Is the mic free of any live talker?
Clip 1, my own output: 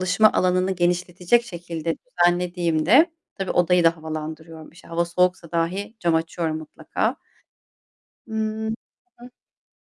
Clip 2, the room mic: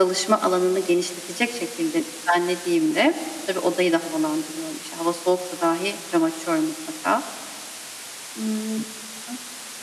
Yes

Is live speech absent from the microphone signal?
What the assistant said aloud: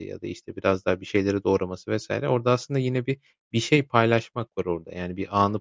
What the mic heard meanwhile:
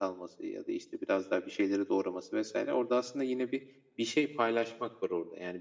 Yes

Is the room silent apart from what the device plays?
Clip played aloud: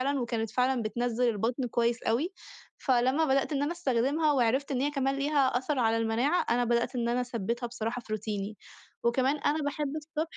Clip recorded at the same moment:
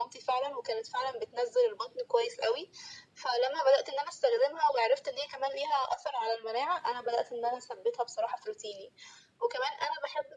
Yes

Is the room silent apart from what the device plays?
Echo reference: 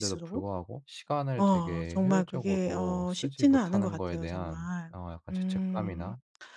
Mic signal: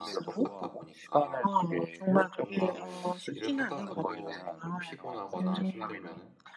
No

